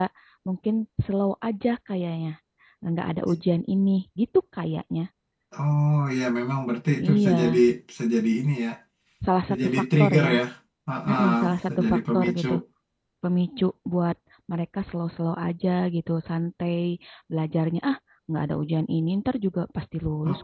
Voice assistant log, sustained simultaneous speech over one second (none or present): present